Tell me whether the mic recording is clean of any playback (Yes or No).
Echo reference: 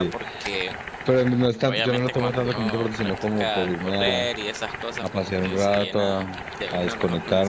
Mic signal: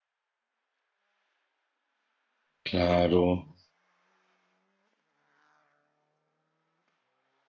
Yes